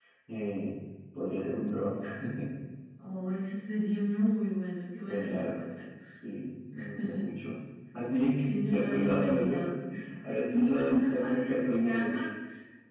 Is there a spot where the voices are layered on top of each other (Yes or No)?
Yes